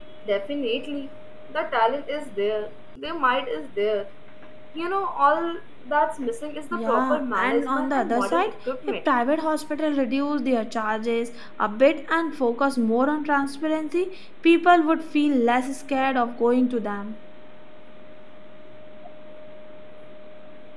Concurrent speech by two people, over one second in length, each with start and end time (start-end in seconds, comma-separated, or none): 6.7-8.5